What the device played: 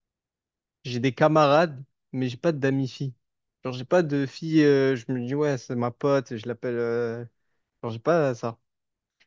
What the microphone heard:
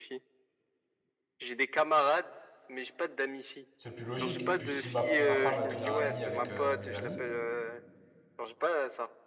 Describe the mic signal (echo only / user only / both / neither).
both